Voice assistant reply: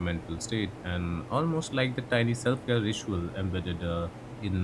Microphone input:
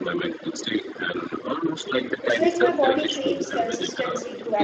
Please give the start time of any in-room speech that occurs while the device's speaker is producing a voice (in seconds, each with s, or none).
2.2 s